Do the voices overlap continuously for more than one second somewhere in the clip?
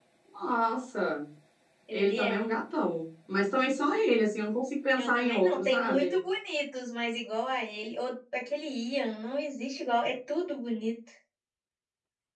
Yes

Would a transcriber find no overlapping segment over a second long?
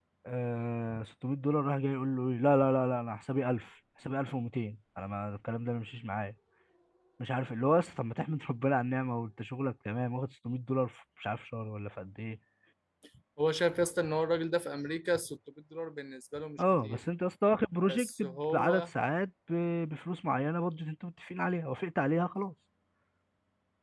Yes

